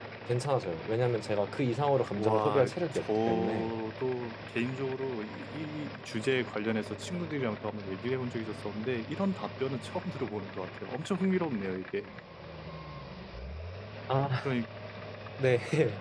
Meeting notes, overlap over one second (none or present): present